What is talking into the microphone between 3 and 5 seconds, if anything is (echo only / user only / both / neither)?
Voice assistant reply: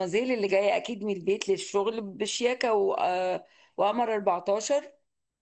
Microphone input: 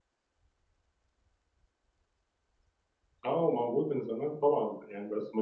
user only